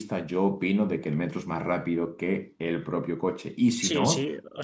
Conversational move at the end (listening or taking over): taking over